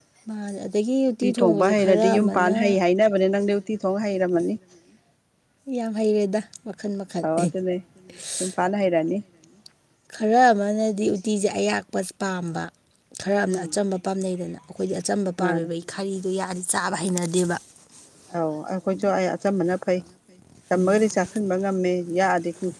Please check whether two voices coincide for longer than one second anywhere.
Yes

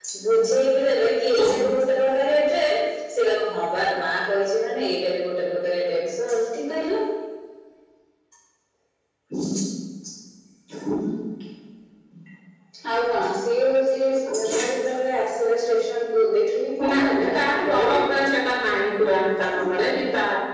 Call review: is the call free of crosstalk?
No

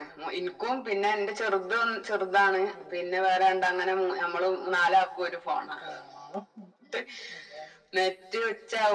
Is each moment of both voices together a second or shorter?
Yes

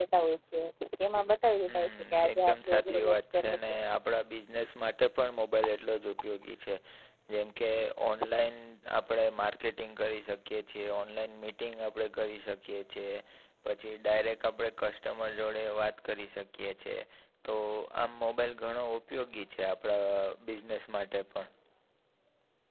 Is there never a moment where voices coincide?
No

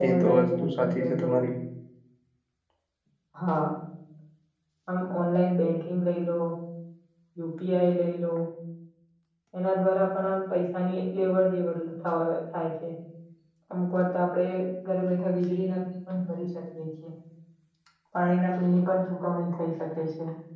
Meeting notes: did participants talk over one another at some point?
Yes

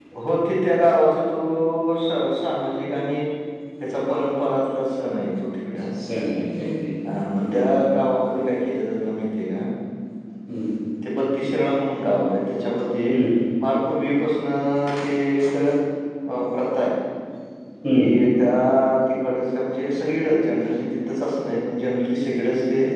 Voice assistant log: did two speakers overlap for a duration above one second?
No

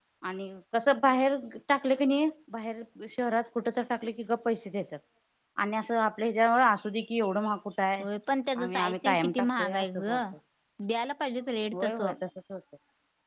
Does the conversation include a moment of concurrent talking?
Yes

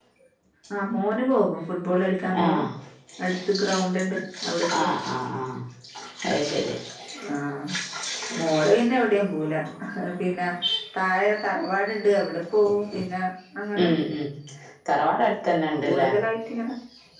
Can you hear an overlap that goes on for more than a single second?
No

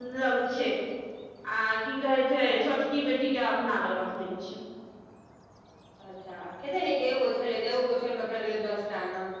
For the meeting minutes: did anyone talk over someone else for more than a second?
No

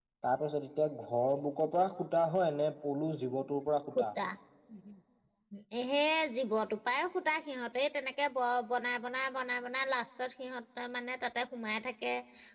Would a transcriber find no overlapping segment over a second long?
Yes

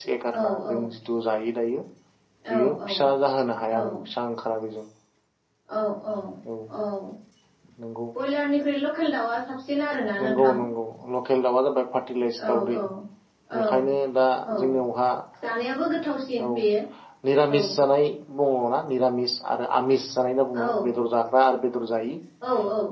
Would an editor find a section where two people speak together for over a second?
No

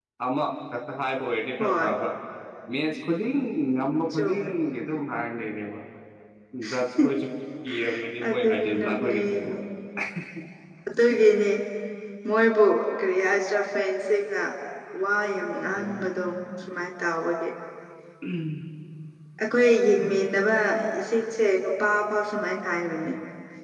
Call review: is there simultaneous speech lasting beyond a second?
Yes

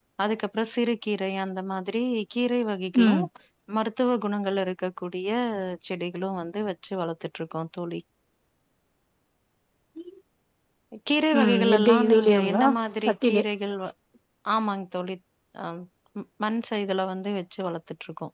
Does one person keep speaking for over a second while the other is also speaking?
Yes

